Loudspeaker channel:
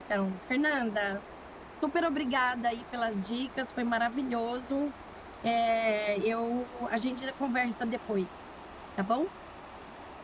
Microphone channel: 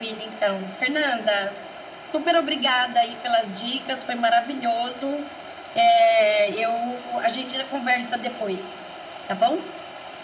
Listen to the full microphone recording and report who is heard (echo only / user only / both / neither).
echo only